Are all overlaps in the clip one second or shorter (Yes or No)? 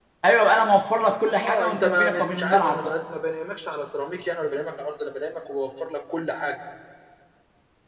No